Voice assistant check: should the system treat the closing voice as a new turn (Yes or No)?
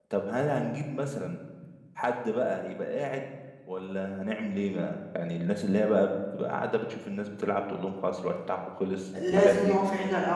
Yes